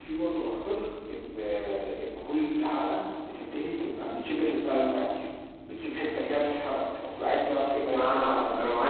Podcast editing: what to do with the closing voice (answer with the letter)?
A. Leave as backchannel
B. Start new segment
B